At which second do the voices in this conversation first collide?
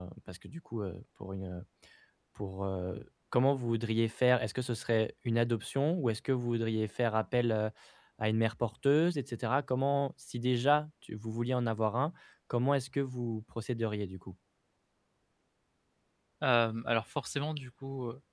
none

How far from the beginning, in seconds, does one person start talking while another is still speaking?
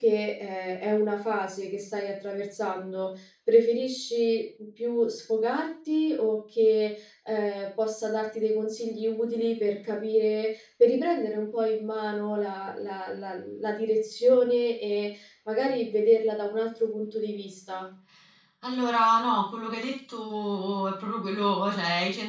none

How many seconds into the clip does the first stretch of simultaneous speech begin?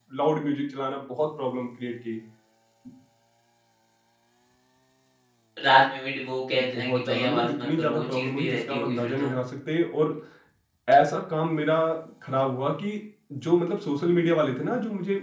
6.6 s

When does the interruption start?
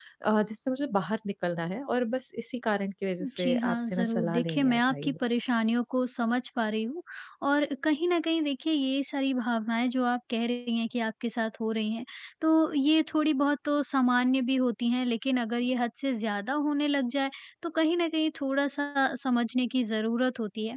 3.2 s

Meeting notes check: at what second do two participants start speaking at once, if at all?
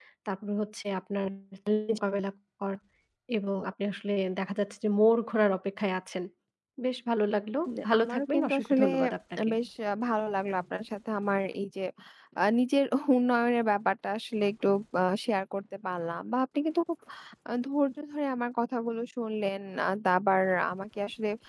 7.7 s

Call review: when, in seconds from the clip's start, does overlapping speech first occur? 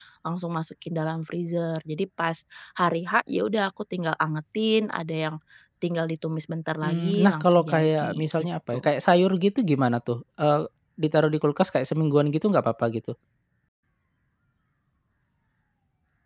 6.8 s

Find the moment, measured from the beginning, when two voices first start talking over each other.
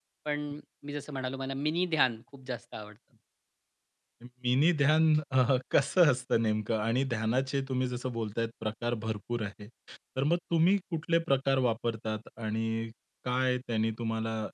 none

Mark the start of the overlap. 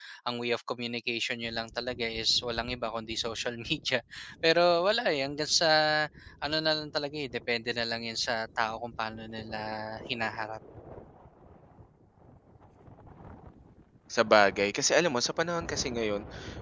none

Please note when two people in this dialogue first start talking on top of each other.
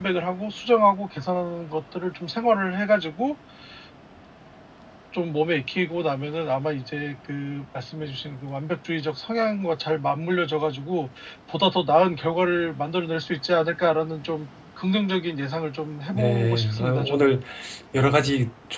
16.1 s

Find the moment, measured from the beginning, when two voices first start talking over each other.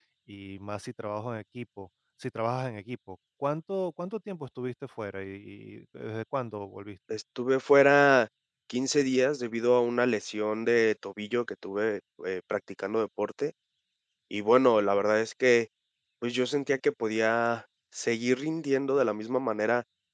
none

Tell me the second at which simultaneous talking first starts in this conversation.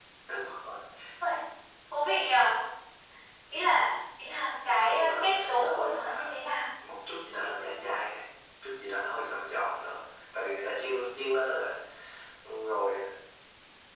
4.8 s

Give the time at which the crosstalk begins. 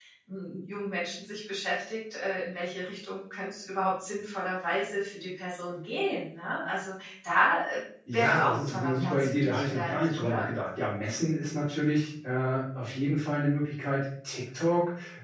8.1 s

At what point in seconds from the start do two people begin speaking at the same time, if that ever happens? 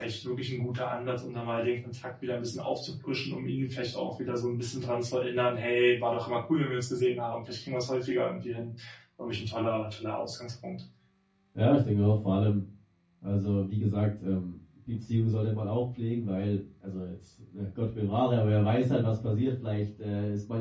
none

